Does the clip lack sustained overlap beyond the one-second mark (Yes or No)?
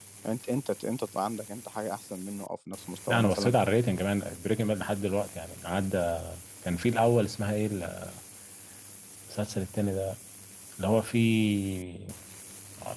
Yes